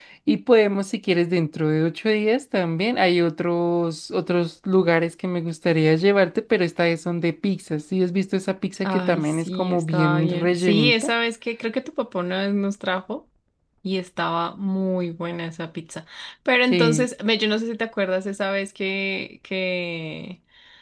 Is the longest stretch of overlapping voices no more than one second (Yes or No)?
No